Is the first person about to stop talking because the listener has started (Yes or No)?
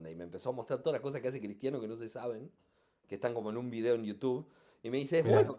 No